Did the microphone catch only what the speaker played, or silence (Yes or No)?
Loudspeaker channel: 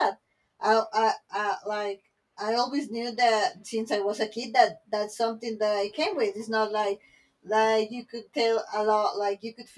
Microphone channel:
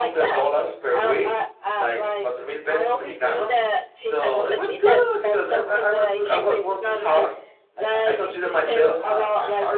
No